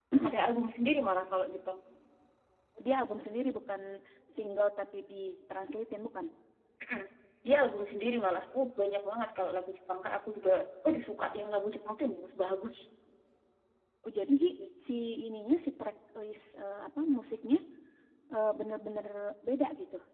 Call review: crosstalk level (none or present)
none